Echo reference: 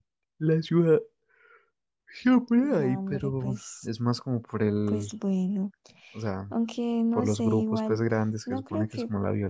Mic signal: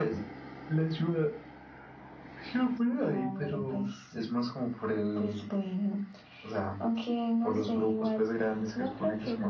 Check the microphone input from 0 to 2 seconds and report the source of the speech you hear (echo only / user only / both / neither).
echo only